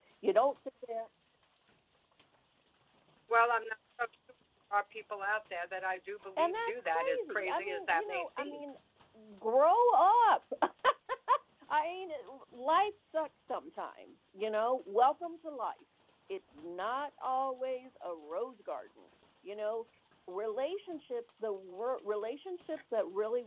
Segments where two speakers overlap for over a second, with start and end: 6.4-8.6

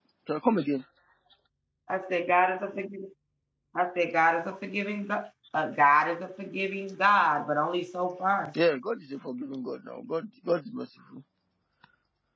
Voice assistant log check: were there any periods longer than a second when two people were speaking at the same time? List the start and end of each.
none

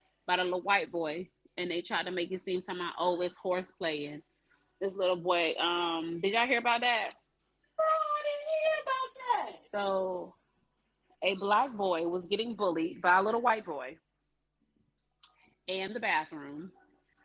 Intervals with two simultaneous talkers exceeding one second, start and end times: none

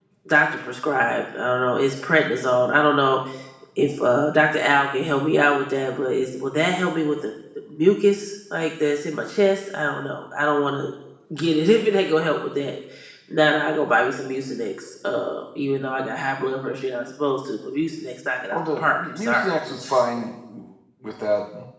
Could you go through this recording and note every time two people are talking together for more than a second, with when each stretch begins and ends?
18.5-20.0

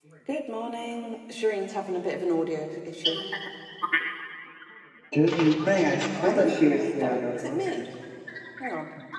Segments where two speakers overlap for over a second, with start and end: 6.2-7.8

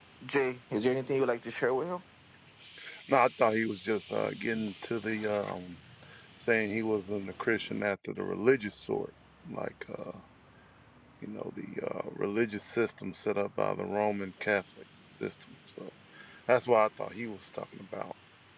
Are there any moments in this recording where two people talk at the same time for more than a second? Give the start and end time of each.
none

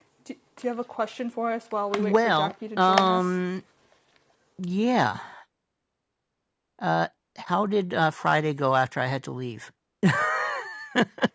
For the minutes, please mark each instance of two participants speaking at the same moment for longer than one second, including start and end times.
2.0-3.2

